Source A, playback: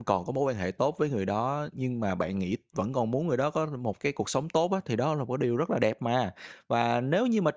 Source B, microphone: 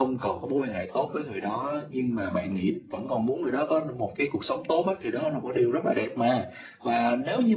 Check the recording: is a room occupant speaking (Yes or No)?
Yes